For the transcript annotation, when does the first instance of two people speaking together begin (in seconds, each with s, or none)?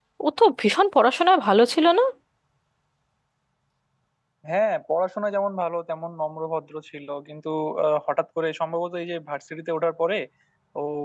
none